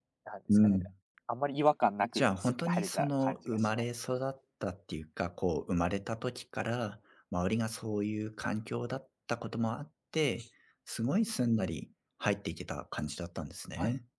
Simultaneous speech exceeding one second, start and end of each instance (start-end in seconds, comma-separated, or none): 2.1-3.8